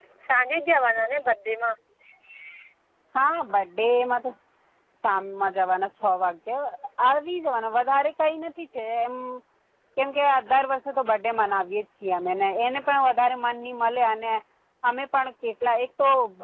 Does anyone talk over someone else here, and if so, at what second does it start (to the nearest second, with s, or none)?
none